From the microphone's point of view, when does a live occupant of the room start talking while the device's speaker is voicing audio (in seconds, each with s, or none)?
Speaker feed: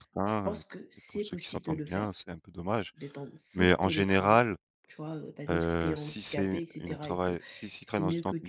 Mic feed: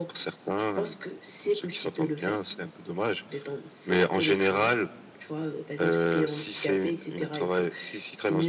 none